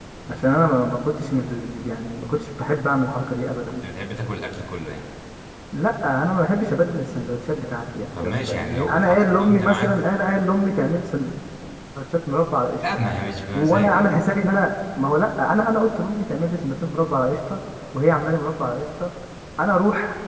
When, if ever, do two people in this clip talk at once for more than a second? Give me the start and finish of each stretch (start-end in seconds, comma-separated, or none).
8.2-10.0